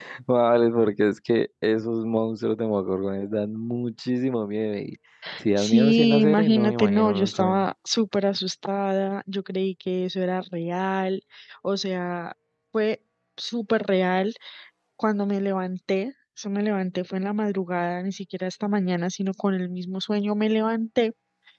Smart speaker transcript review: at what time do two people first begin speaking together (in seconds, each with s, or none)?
5.6 s